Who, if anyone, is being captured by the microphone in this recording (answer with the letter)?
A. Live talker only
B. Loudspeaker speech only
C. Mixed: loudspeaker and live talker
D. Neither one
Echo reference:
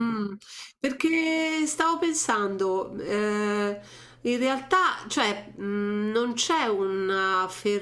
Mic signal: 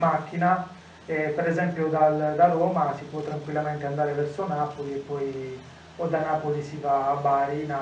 A